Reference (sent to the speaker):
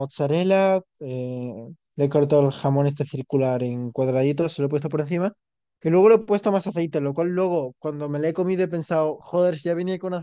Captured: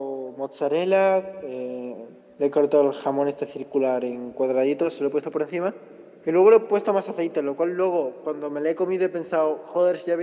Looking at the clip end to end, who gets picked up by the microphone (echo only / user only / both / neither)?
echo only